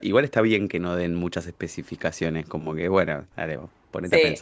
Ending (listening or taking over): taking over